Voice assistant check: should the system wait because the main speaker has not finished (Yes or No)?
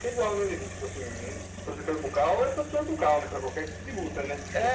No